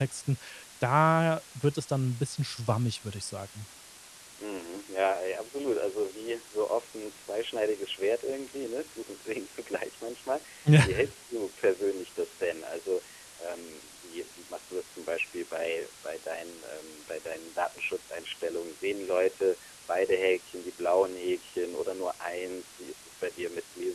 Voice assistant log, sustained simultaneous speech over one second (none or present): none